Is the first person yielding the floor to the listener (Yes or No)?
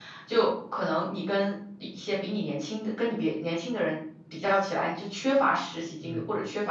No